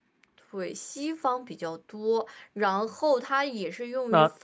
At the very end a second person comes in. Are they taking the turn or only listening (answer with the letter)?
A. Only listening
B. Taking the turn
A